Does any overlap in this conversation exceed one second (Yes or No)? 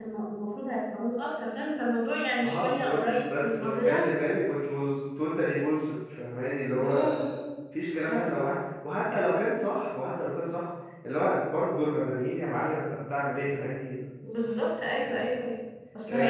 Yes